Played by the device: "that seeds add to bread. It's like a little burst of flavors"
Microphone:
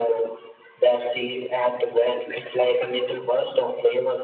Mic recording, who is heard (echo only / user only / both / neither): echo only